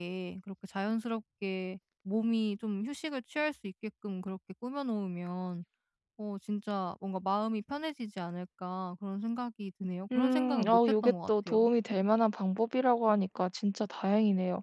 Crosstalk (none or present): present